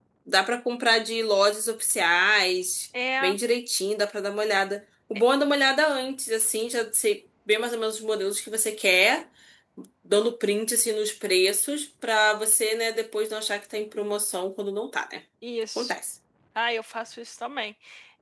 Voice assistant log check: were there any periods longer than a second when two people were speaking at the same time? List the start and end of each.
none

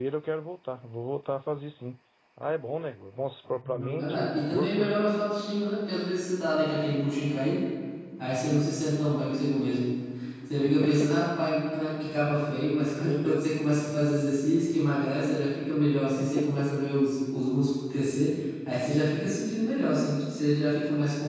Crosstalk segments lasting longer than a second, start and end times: 3.6-5.0

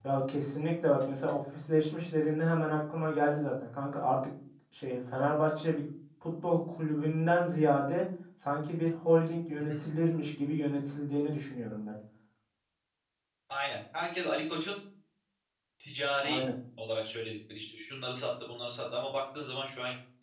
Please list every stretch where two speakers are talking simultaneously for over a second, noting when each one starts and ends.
none

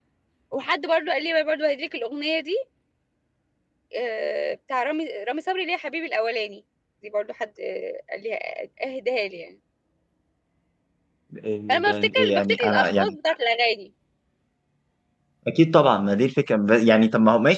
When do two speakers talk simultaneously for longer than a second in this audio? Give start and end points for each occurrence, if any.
11.7-13.2

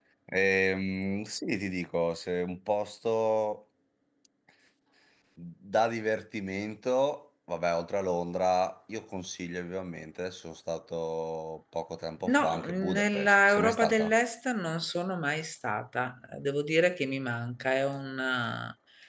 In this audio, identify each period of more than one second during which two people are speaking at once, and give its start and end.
12.3-14.1

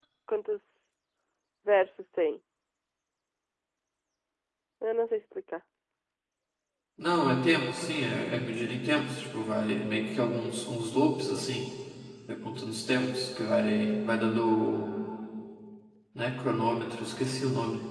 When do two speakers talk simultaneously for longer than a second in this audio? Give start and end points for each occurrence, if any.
none

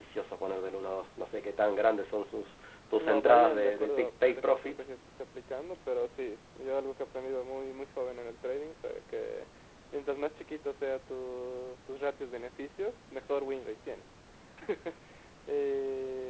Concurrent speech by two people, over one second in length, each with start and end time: 3.0-4.8

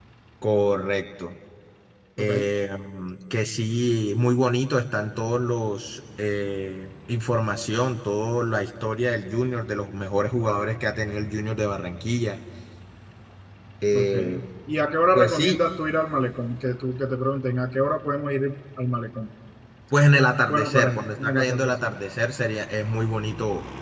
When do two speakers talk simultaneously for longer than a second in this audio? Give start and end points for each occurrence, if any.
20.5-21.9

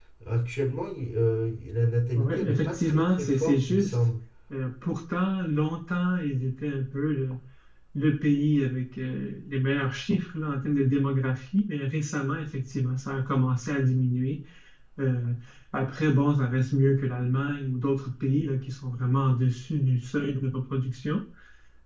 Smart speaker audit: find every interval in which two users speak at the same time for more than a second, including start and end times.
2.1-4.0

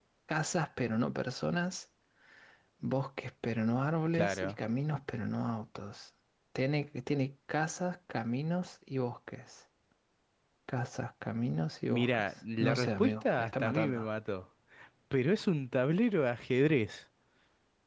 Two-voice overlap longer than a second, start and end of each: 11.9-14.1

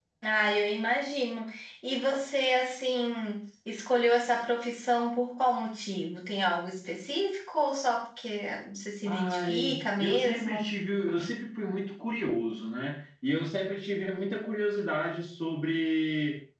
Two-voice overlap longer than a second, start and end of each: 9.1-10.7

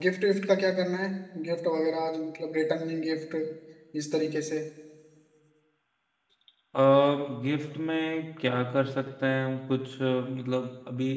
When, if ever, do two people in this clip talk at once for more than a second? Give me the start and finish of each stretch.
none

